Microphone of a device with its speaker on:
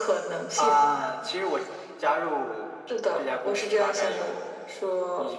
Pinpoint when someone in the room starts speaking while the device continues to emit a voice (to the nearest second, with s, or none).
none